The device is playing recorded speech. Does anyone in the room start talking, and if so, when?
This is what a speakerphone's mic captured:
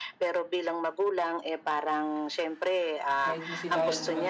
3 s

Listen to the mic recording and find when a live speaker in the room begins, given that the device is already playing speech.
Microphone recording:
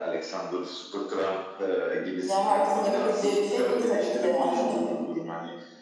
2 s

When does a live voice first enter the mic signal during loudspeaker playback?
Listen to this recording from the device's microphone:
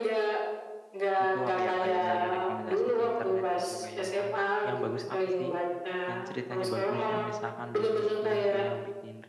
1 s

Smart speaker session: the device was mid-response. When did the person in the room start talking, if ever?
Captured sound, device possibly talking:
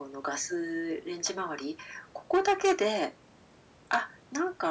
none

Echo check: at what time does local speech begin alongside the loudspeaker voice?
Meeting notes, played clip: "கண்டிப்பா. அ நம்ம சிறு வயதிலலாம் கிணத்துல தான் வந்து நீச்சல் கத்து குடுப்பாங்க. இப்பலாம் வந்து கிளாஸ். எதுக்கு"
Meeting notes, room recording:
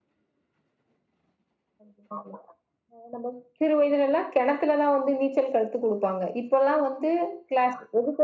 none

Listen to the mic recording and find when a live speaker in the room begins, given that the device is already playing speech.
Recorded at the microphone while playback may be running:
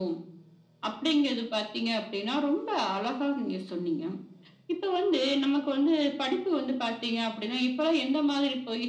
none

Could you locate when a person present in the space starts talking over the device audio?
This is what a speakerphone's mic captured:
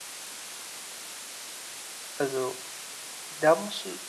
2 s

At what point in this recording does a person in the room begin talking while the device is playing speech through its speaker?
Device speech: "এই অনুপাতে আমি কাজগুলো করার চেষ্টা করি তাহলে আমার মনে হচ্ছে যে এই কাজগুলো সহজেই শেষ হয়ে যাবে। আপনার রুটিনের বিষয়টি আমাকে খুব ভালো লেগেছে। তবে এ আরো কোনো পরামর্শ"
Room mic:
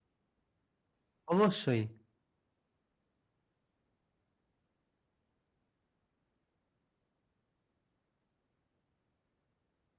1 s

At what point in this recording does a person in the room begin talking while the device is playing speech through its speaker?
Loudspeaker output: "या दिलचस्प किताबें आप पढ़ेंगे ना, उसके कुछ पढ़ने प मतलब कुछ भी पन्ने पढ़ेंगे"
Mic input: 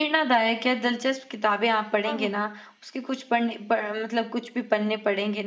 2 s

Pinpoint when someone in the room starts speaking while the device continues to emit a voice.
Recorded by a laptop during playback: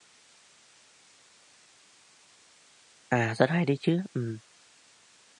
3 s

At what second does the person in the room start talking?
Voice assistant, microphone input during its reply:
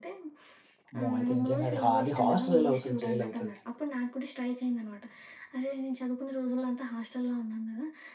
1 s

